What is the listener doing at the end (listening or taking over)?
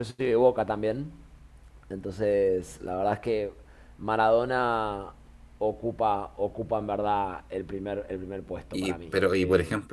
taking over